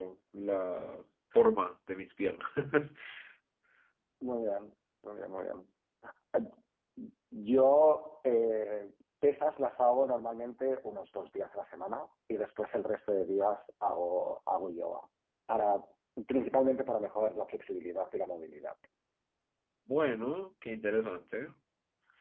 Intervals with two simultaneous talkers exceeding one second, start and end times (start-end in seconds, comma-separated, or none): none